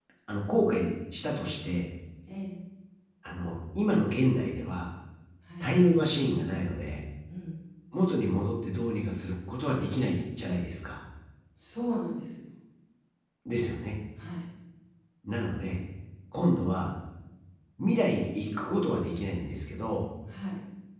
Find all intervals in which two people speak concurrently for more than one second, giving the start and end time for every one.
none

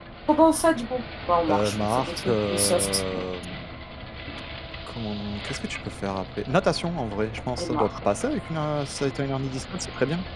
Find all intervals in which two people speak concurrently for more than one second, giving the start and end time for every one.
1.5-3.0

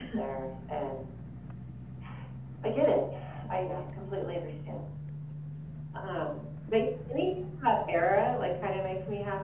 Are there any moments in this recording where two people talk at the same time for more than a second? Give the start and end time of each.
none

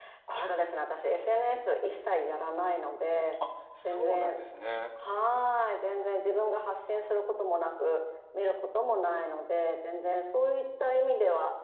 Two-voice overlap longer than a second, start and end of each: none

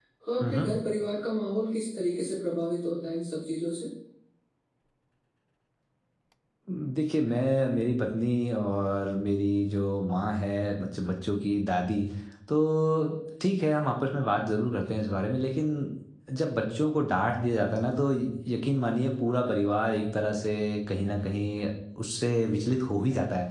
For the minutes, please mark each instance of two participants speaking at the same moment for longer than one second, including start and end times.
none

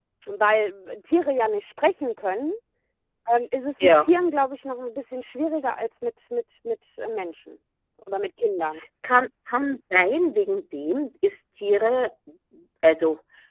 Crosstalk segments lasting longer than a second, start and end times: none

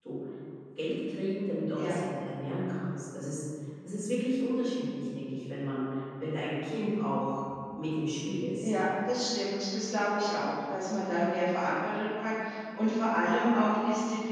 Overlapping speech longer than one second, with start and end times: none

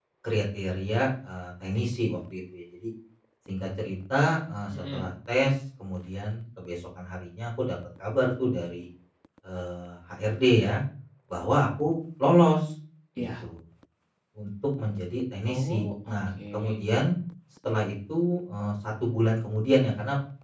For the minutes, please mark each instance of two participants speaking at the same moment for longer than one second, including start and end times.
15.5-16.8

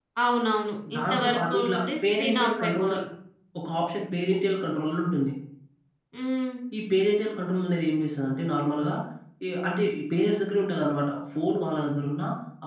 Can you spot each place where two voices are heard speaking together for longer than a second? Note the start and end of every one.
0.9-2.9

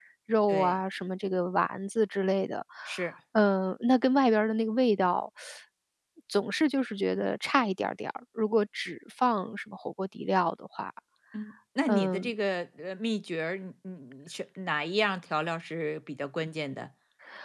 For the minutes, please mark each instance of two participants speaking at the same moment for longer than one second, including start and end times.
none

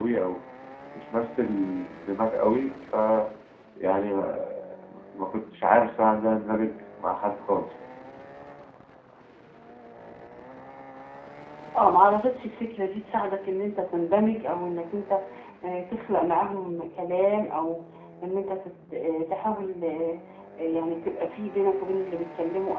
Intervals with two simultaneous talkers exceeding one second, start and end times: none

